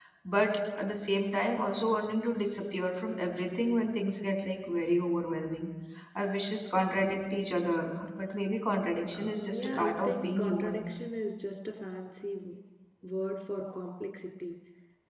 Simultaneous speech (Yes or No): Yes